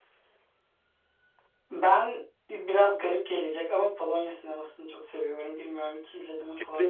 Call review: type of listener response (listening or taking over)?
taking over